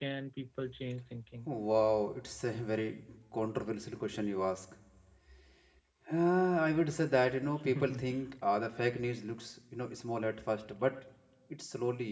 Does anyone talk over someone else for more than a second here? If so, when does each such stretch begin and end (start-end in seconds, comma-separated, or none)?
none